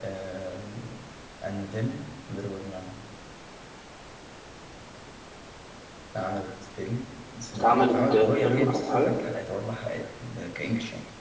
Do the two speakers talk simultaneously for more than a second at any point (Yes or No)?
Yes